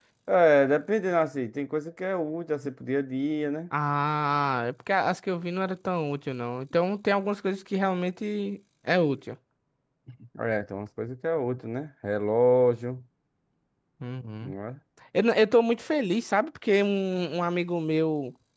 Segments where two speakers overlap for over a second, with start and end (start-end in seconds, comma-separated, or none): none